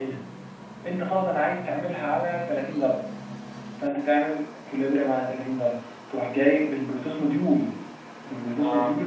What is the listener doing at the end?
listening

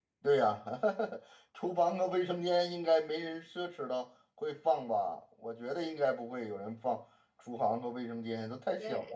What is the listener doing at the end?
taking over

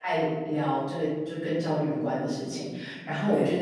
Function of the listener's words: listening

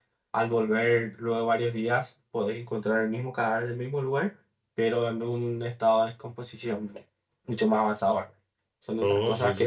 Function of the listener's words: taking over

